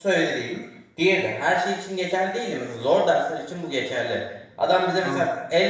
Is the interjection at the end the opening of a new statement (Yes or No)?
No